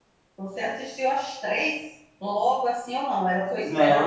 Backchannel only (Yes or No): No